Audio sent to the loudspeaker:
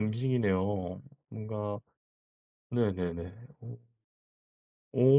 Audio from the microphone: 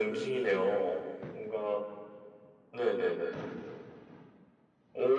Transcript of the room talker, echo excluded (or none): none